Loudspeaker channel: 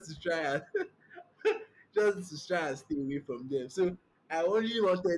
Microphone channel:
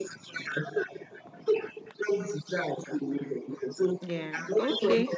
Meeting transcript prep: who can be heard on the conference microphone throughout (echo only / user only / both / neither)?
both